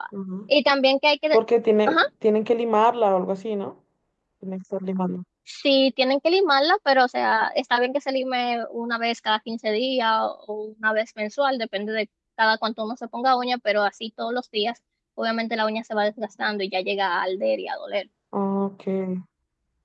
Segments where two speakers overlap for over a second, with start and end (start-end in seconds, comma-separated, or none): none